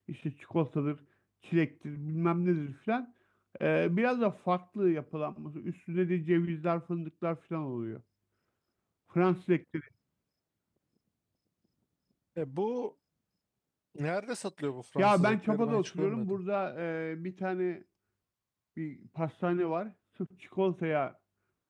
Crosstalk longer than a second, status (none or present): present